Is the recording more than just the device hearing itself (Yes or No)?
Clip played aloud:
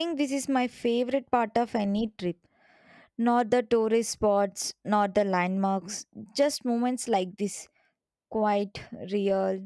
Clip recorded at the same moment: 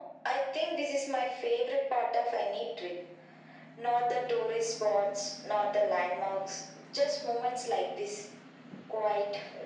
No